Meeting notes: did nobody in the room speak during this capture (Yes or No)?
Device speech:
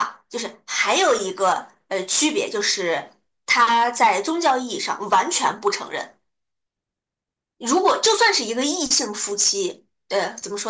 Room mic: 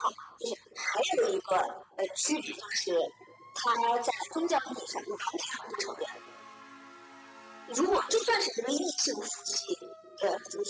Yes